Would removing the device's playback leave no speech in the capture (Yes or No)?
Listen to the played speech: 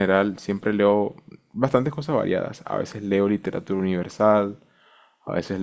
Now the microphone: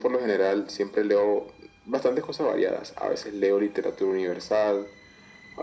Yes